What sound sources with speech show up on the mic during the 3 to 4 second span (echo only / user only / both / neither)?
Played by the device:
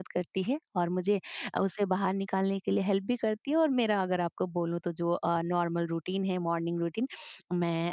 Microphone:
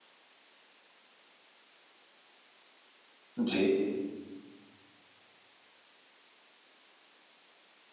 user only